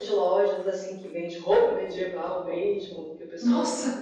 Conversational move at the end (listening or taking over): listening